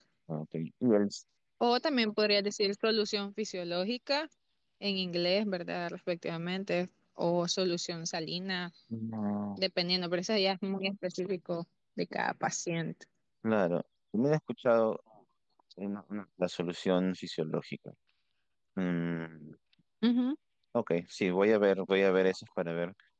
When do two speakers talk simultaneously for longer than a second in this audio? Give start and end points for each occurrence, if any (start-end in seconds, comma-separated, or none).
none